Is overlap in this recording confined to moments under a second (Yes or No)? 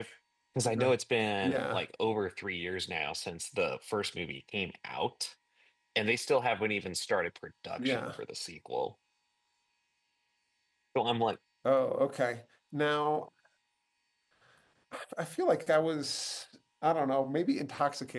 Yes